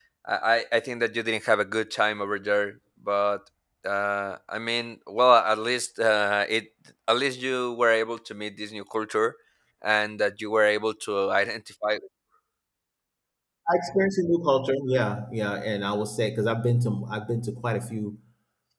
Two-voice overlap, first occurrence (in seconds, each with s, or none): none